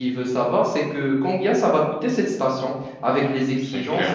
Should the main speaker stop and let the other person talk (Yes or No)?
No